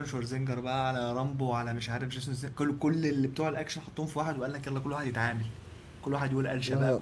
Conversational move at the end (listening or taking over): listening